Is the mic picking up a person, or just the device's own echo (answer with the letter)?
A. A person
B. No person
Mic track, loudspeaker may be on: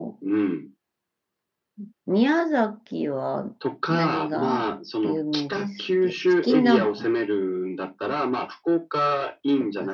A